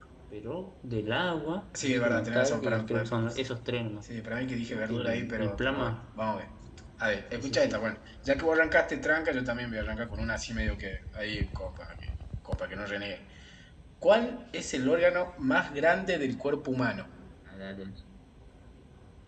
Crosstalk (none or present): present